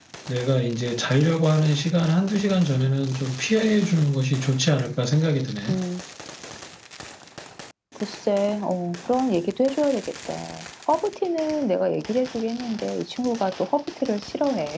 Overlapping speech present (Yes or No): No